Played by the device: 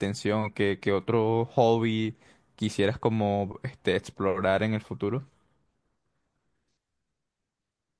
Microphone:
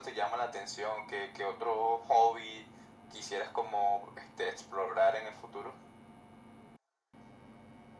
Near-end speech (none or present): none